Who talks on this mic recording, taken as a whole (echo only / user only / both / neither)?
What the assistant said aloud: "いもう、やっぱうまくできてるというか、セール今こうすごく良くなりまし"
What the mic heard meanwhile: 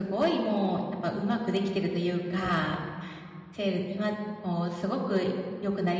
echo only